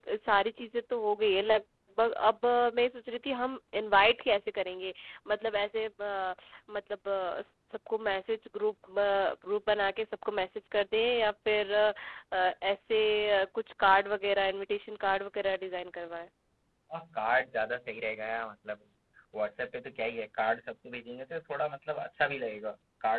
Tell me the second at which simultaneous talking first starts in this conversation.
none

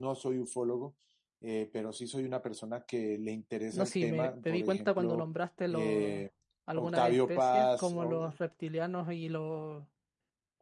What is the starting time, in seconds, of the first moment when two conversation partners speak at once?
4 s

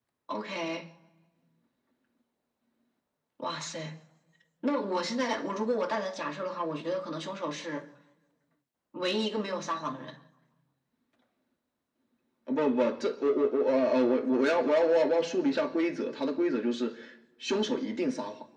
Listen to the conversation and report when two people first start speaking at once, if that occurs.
none

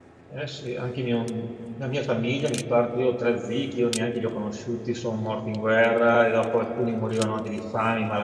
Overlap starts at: none

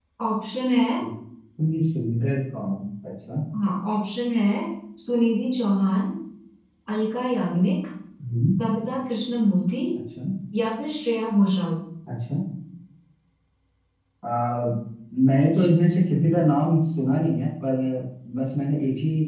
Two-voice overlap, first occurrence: none

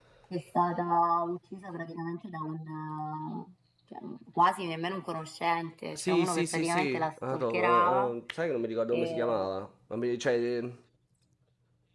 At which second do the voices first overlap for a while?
6 s

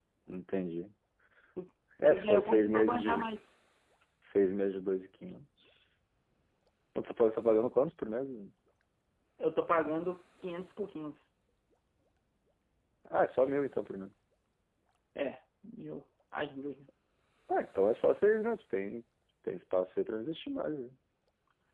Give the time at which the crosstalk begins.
2 s

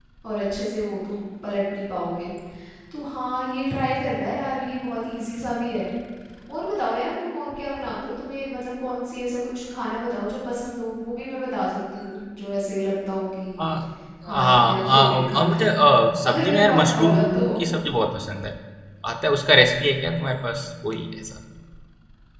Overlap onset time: 14 s

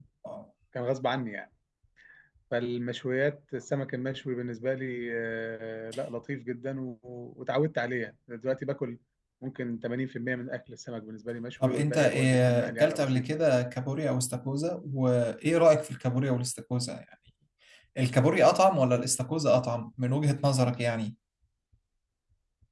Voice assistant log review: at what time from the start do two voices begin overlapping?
12 s

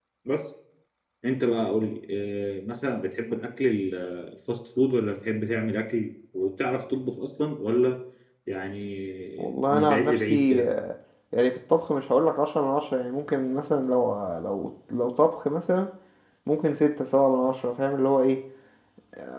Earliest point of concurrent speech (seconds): 9 s

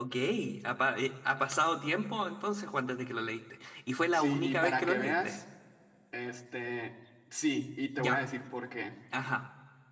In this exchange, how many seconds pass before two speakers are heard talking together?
4 s

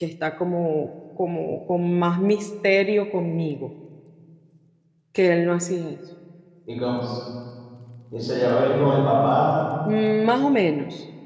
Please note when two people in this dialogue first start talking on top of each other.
none

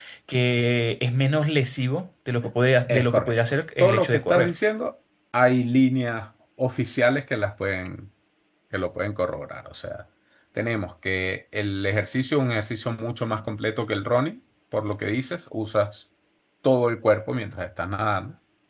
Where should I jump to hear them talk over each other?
3 s

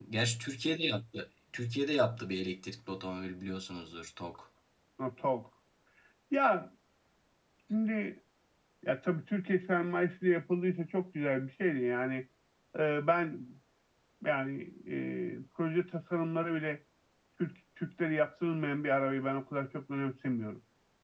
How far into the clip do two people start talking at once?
none

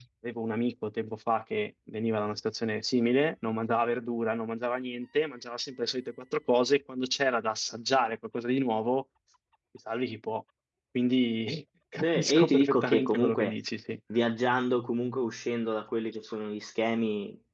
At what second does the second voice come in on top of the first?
12 s

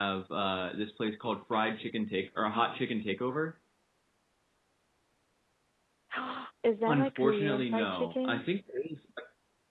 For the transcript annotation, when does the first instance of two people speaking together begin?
7 s

